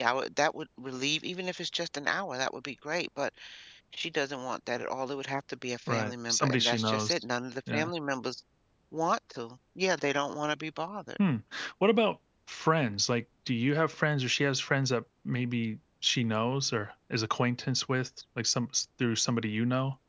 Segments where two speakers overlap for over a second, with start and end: 5.9-7.1

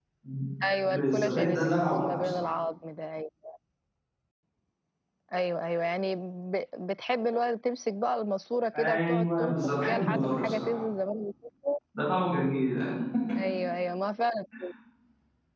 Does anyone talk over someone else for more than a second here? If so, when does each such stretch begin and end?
0.8-2.5, 8.8-10.8

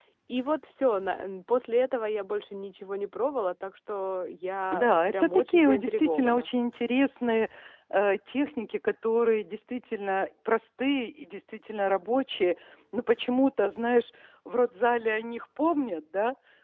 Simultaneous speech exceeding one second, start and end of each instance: 4.7-6.5

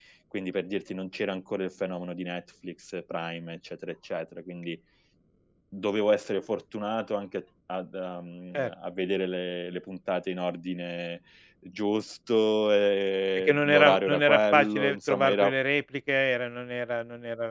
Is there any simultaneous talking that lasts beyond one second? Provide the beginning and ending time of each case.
13.3-15.4

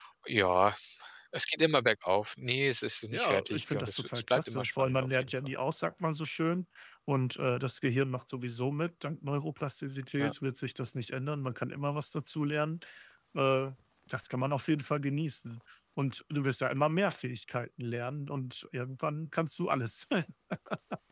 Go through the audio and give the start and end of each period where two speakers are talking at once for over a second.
3.1-5.5

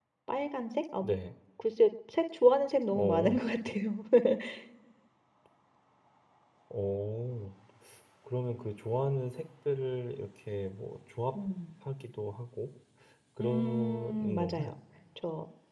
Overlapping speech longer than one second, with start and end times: 13.4-14.7

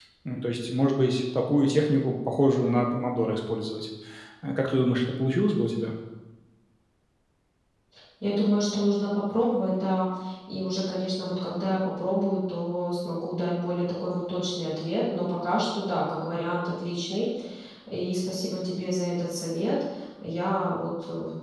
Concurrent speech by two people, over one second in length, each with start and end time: none

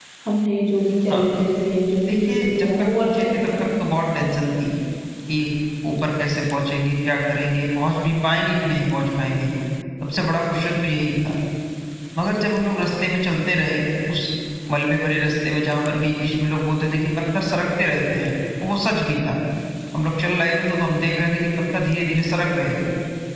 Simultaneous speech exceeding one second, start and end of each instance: 2.0-3.5

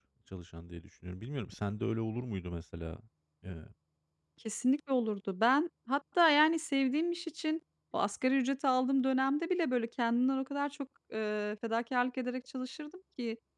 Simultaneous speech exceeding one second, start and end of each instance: none

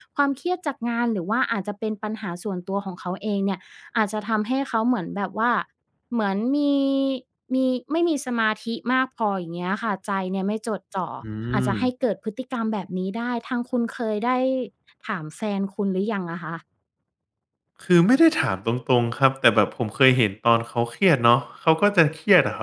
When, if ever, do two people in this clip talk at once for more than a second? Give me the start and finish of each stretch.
none

